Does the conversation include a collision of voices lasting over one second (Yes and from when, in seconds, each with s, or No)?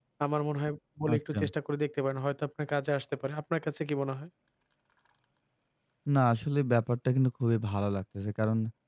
No